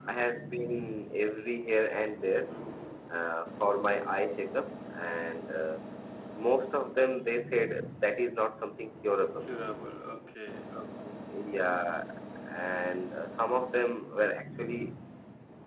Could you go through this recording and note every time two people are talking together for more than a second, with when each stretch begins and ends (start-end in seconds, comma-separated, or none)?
none